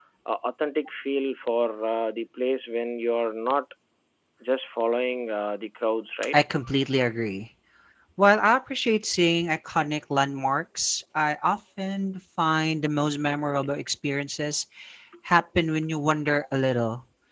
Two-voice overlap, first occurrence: none

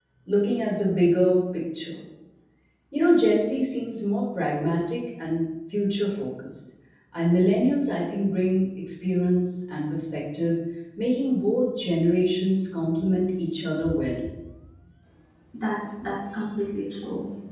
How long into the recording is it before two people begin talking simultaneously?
none

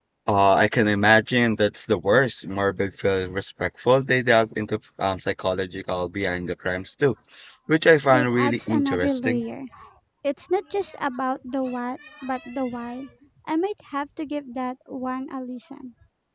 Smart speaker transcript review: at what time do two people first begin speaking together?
8.1 s

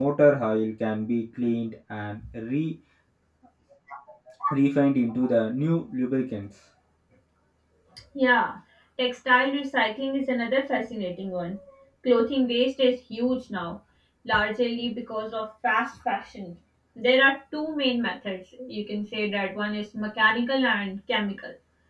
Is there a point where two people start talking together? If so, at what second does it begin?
none

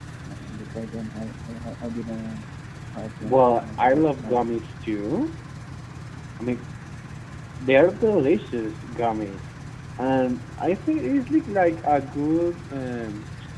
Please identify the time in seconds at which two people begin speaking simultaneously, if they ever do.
3.2 s

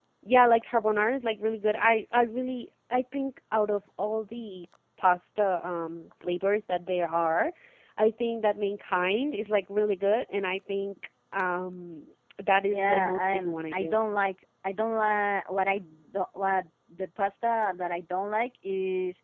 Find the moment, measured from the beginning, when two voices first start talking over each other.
12.7 s

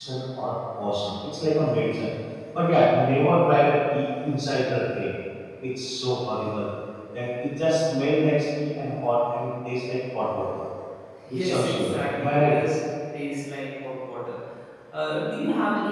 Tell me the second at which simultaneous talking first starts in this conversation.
11.3 s

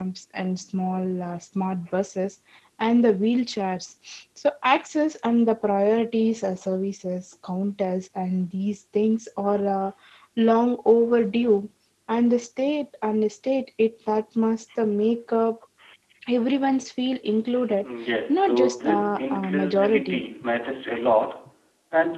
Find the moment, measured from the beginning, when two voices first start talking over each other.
18.3 s

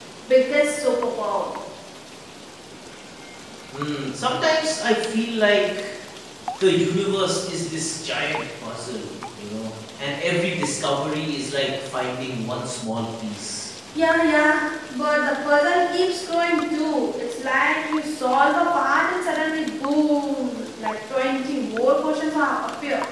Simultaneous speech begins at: none

